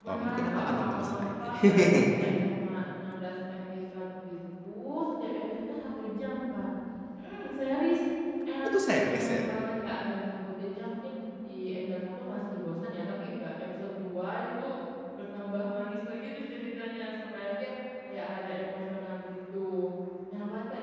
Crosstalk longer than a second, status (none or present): present